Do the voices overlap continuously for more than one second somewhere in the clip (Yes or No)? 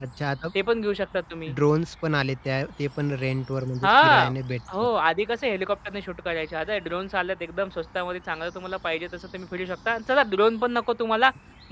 No